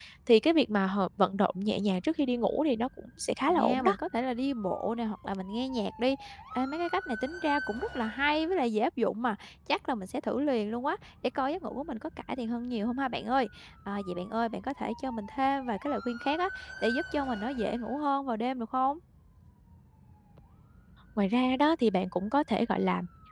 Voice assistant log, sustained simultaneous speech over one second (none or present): none